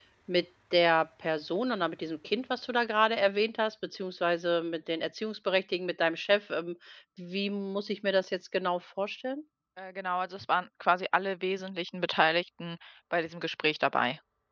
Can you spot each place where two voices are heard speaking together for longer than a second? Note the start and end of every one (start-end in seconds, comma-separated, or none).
none